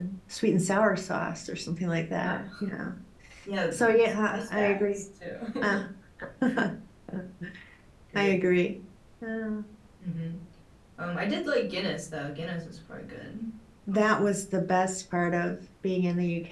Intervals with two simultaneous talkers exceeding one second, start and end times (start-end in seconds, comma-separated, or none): 3.7-5.0